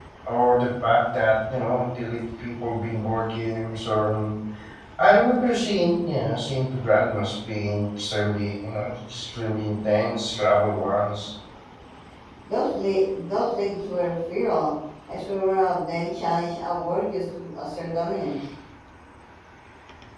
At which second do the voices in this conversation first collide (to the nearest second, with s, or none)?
none